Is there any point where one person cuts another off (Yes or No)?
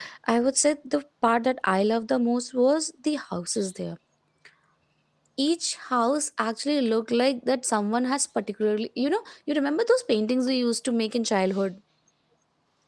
No